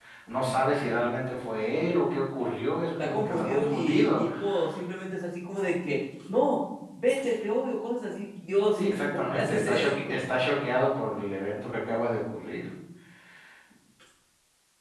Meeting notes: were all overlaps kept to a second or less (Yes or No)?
No